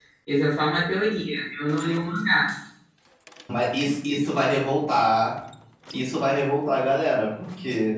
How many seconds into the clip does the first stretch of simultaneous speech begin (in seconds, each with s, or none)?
none